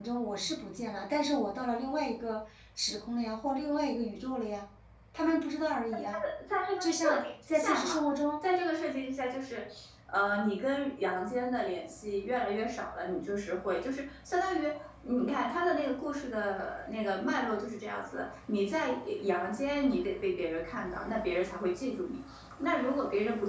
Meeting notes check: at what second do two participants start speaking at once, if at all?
6.8 s

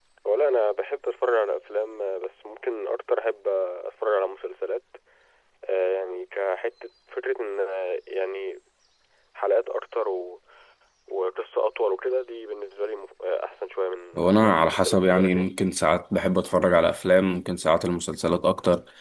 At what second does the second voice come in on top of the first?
14.2 s

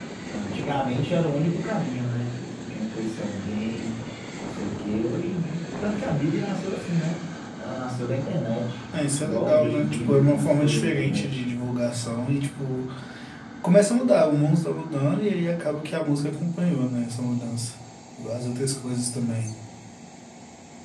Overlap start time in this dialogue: 9.2 s

